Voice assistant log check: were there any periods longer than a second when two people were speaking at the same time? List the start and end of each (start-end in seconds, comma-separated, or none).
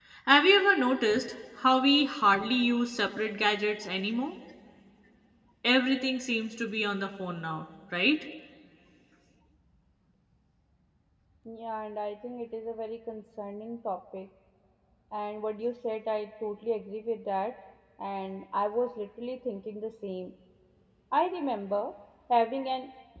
none